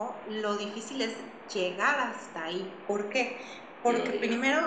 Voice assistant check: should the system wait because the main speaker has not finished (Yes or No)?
Yes